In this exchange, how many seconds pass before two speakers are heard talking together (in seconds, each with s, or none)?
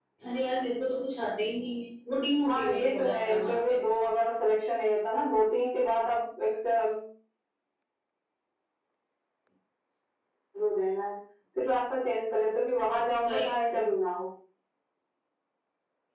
2.4 s